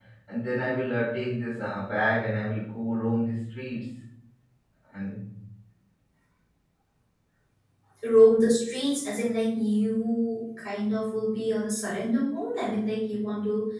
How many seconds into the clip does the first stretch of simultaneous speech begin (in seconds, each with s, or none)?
none